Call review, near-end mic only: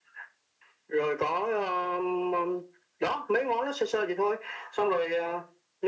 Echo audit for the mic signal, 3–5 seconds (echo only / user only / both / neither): echo only